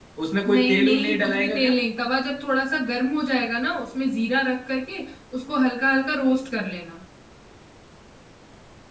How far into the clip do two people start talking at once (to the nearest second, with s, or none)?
1 s